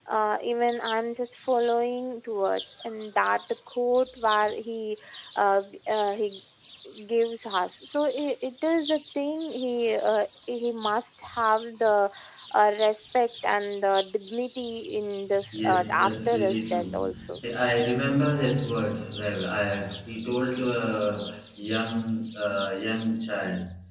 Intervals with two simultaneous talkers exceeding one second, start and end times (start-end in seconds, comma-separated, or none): 15.5-17.4